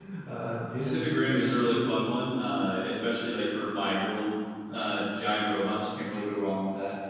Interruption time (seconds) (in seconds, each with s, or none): 0.8 s